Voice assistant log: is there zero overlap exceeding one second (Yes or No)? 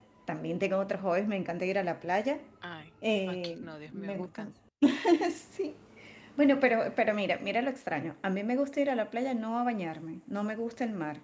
No